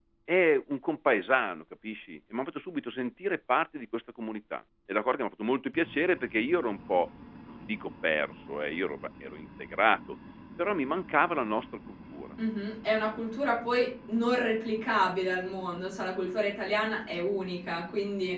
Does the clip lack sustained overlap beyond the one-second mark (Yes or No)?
Yes